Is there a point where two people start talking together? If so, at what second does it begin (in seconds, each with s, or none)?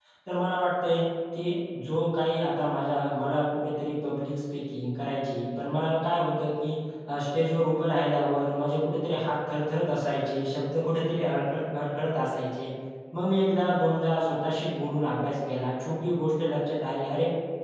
none